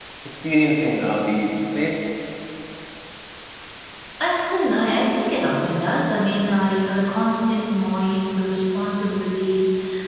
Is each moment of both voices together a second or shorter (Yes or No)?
Yes